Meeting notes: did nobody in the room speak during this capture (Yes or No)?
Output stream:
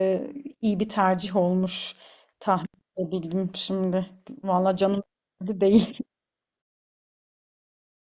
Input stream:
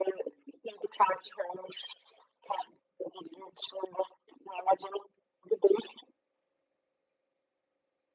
Yes